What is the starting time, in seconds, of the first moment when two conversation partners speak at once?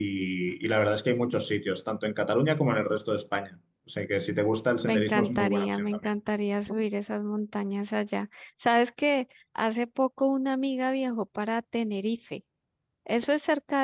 4.8 s

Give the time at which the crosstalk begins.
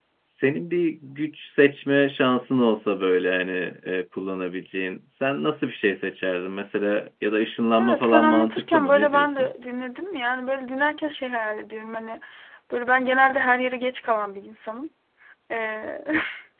7.8 s

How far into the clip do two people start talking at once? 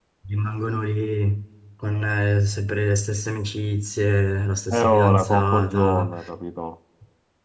4.7 s

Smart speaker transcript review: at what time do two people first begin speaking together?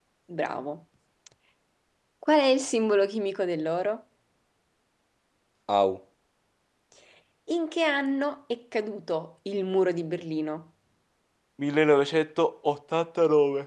none

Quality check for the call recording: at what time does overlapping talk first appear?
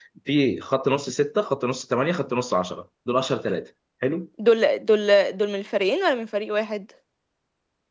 none

